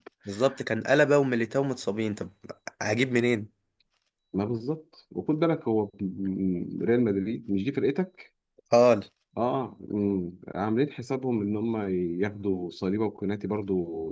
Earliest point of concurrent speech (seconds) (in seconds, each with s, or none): none